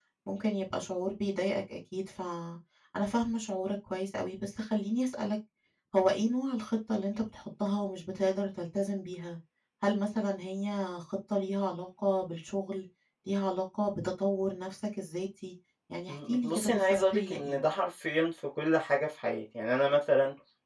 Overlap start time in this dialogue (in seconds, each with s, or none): 16.1 s